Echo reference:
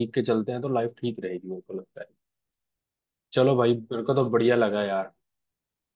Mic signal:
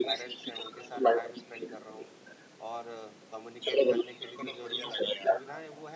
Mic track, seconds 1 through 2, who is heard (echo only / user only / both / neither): both